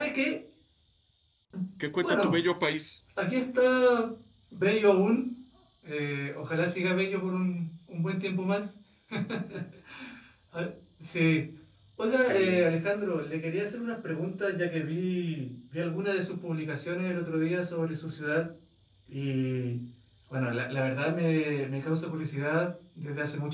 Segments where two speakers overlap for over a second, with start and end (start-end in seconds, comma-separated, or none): none